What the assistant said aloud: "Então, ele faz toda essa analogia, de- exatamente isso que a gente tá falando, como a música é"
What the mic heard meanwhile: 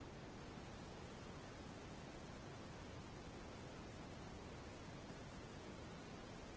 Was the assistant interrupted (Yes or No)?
No